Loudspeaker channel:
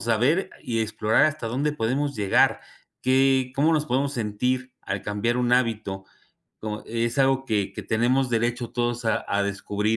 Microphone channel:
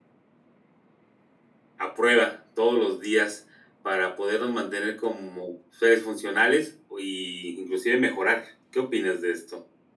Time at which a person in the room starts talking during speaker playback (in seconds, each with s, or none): 1.8 s